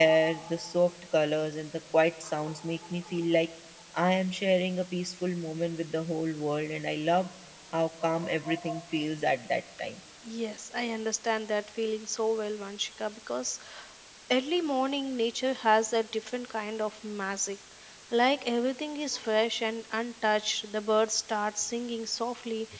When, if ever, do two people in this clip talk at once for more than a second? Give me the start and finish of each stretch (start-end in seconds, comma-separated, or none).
none